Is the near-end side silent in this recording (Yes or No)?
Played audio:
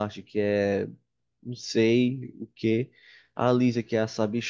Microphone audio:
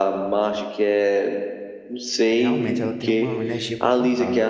No